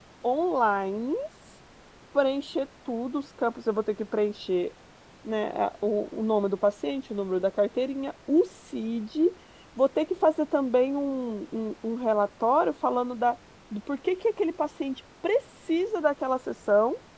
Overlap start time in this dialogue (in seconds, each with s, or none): none